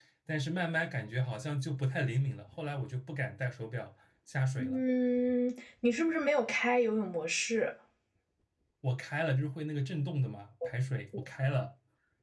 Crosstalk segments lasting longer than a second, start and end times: none

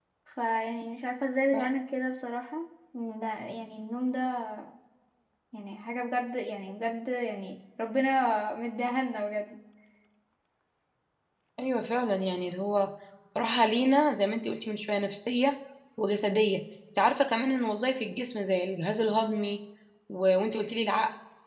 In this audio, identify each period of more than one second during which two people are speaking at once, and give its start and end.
none

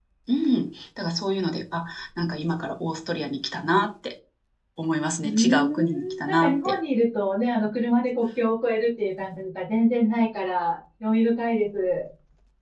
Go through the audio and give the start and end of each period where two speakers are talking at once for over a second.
5.2-6.7

